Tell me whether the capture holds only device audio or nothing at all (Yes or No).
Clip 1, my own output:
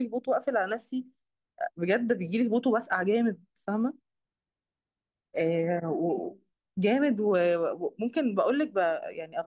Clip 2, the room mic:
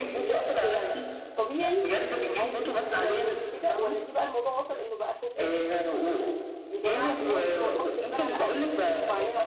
No